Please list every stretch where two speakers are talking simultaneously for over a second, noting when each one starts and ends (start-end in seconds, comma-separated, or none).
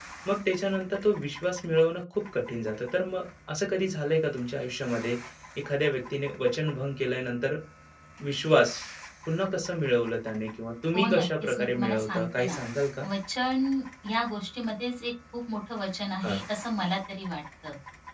10.9-12.6